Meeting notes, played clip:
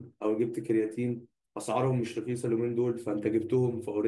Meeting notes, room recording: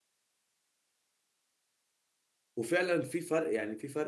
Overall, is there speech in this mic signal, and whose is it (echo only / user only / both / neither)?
user only